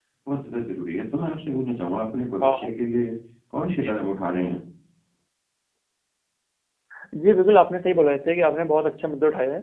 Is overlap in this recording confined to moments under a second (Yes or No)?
Yes